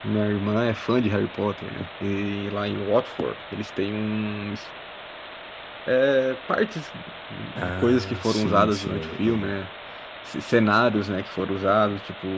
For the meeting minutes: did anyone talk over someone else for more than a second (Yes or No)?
Yes